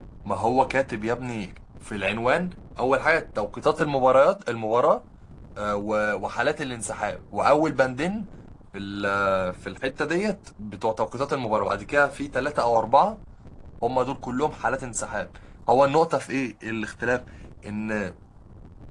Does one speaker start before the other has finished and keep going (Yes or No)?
No